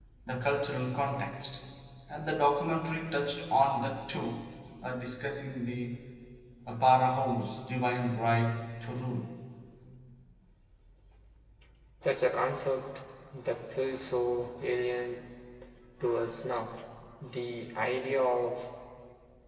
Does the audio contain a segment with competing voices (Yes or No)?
No